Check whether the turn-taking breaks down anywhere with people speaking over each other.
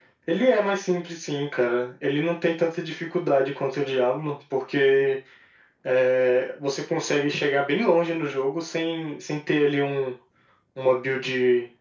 No

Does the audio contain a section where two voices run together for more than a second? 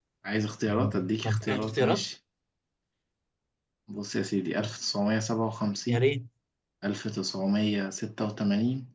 Yes, from 0.7 s

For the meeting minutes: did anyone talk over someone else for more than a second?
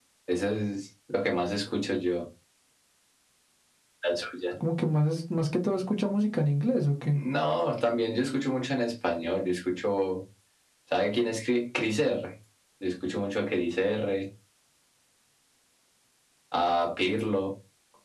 No

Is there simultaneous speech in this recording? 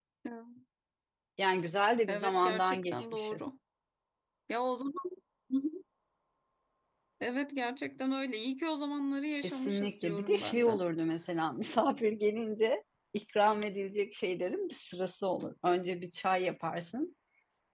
Yes, from 2.1 s

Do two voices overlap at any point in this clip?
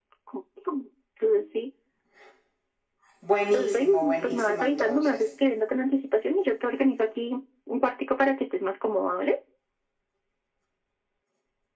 Yes, from 3.5 s

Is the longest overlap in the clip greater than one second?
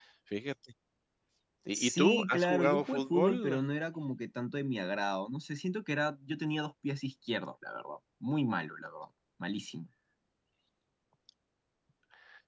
Yes, from 1.7 s

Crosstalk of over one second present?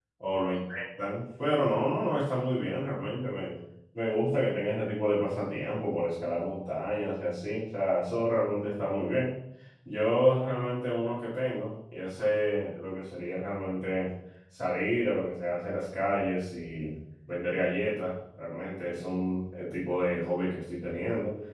No

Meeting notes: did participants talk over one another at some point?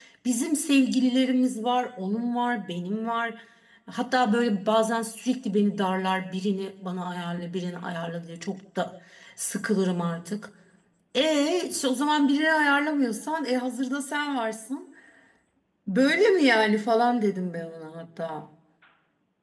No

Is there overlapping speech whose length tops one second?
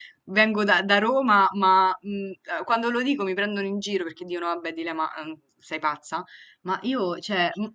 No

